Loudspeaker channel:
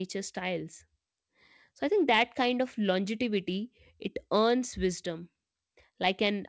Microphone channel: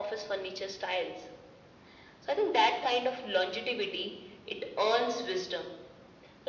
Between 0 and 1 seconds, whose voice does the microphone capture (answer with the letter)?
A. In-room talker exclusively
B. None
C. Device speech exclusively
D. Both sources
C